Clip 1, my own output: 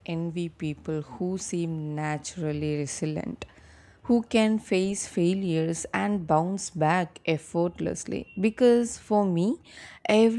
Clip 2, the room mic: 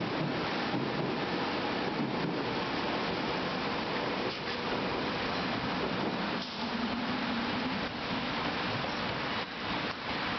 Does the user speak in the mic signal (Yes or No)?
No